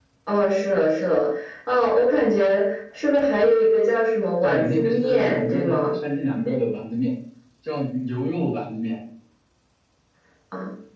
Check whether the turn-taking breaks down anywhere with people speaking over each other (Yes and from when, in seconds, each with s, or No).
Yes, from 4.4 s